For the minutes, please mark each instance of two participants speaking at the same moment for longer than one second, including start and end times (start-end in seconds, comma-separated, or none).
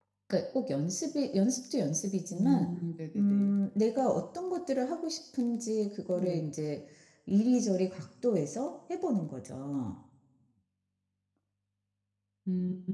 none